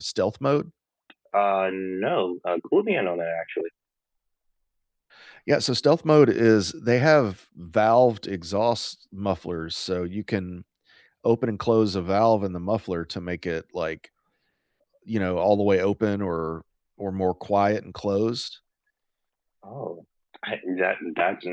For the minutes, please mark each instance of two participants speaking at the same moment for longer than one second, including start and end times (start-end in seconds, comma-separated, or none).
none